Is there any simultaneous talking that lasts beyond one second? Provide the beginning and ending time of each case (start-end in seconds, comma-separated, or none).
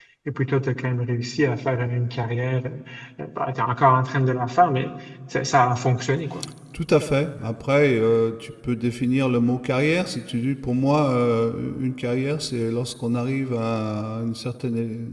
none